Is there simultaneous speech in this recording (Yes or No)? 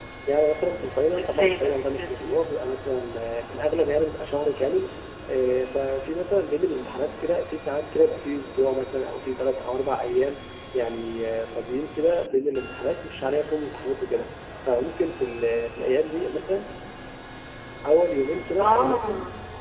Yes